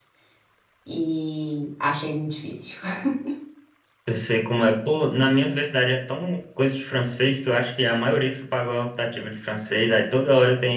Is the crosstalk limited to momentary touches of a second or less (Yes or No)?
Yes